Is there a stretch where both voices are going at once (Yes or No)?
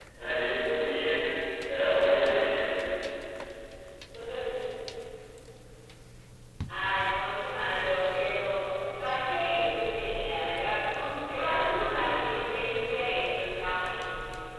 No